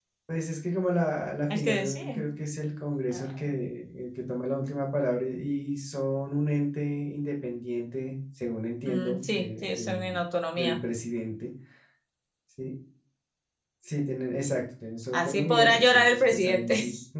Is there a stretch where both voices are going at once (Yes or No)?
Yes